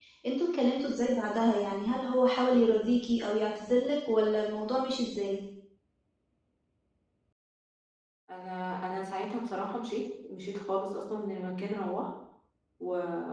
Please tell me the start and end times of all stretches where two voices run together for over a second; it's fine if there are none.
none

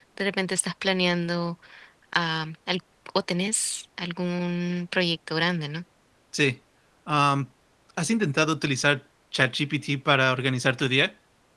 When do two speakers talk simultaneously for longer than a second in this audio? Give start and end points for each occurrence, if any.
none

